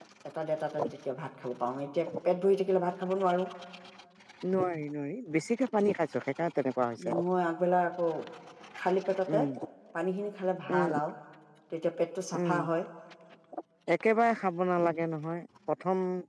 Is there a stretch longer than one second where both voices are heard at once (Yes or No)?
No